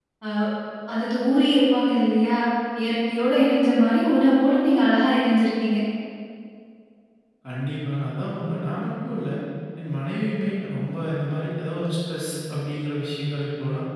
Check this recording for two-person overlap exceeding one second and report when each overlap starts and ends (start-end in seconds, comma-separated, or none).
none